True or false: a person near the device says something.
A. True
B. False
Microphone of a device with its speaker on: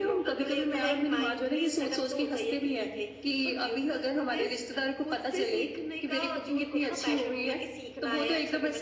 B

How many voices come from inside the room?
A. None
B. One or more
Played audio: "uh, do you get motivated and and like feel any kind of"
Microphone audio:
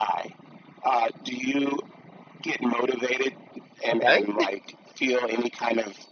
B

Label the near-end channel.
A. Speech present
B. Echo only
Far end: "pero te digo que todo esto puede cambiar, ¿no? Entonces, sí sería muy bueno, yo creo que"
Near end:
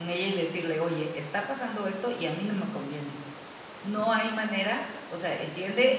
A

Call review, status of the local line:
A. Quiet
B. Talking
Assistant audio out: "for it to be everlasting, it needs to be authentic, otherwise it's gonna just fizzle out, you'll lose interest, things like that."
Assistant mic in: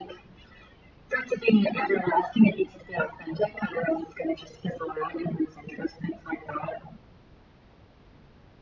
A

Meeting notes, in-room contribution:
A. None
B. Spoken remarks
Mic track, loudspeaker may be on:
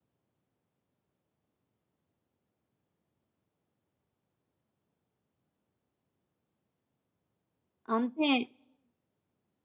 B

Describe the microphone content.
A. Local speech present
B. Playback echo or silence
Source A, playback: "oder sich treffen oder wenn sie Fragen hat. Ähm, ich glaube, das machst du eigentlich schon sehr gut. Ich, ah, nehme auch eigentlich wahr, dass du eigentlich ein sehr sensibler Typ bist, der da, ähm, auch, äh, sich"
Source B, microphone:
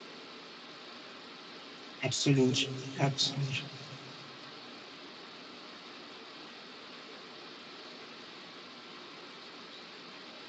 A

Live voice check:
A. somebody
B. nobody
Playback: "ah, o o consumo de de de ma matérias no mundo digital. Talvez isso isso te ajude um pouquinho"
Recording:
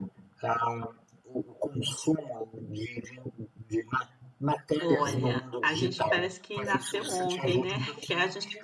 A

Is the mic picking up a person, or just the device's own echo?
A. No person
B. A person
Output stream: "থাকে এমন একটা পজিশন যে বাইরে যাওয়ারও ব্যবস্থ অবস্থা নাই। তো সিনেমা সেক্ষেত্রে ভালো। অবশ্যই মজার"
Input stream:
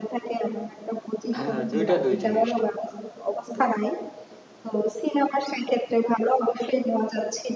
B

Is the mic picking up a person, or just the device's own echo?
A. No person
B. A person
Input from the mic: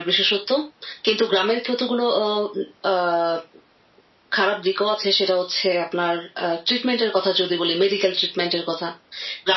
A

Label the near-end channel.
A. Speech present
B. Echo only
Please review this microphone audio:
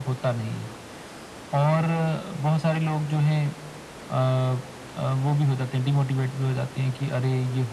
B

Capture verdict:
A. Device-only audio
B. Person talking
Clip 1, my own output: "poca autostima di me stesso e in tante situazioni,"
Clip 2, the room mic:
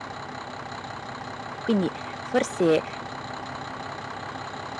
B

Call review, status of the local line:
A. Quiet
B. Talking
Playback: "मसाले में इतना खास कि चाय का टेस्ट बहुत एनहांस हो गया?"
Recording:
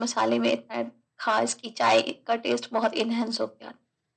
A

